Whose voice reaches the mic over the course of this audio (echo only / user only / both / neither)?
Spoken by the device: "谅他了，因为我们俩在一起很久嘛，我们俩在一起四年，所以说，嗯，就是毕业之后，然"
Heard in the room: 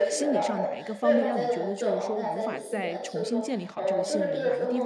both